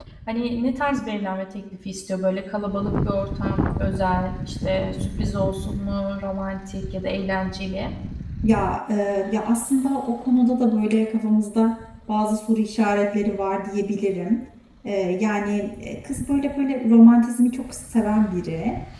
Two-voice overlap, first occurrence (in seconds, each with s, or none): none